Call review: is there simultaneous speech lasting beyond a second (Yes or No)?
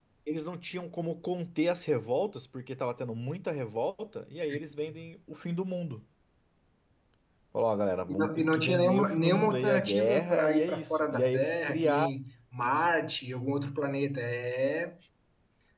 Yes